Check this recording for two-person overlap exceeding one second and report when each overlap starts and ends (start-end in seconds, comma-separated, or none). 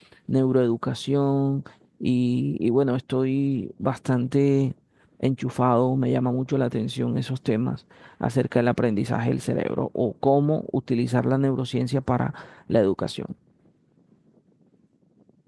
none